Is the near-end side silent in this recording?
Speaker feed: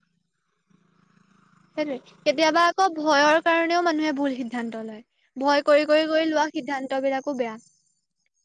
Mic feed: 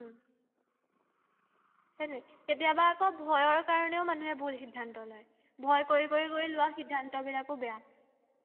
Yes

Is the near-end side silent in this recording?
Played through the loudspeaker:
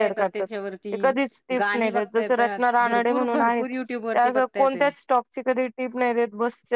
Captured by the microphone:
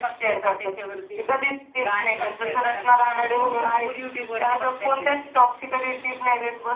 Yes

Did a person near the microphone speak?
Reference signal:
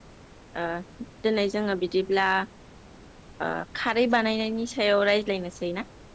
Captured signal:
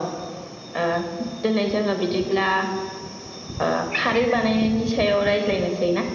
No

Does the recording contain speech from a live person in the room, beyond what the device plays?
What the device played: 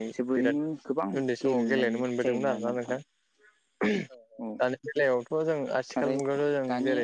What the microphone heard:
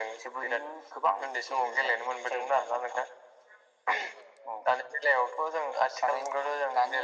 No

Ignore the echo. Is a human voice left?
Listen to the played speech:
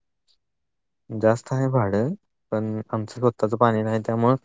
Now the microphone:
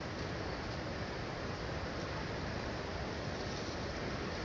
No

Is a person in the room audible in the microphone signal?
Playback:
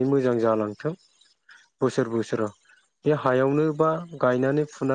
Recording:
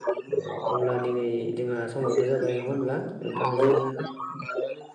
Yes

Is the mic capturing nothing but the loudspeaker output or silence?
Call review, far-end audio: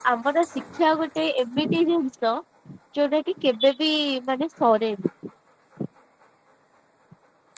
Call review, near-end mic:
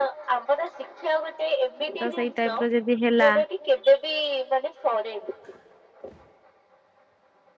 No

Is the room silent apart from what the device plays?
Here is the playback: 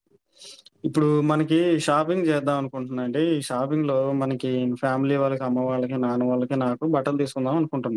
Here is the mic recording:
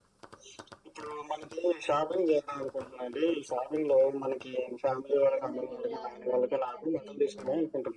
No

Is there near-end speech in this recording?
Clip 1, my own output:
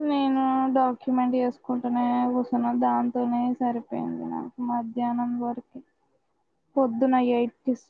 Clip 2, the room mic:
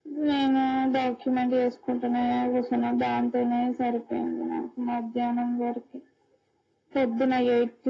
No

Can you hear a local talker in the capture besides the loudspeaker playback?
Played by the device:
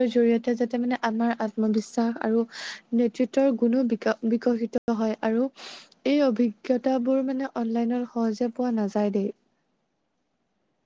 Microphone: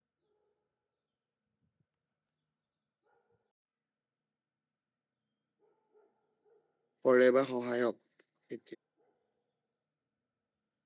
Yes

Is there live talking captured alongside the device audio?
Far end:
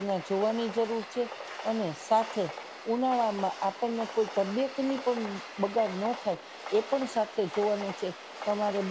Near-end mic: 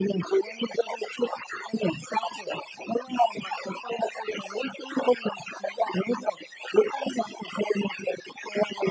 No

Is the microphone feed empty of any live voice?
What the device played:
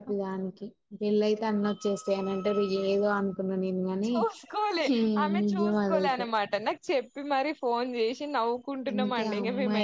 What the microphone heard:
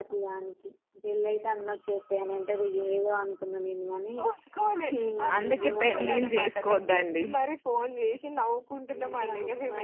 No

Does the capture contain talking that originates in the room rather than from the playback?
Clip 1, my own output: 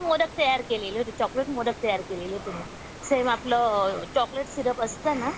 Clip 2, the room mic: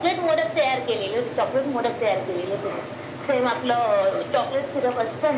No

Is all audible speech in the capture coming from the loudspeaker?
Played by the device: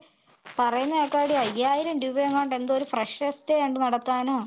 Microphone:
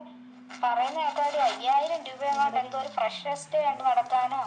No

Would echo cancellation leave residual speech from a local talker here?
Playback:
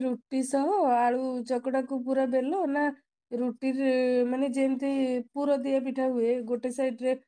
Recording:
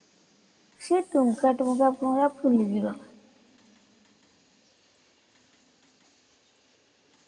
Yes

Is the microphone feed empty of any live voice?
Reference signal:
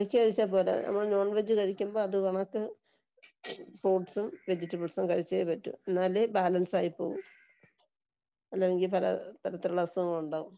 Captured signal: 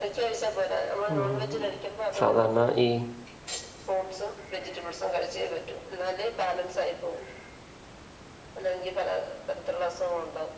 No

